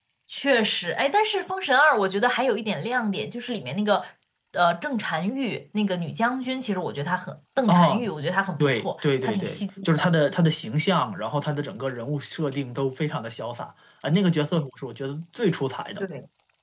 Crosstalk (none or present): present